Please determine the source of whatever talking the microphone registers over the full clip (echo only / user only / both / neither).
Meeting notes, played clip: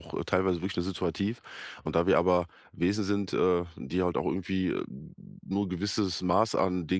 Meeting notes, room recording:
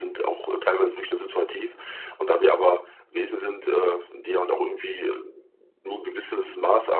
echo only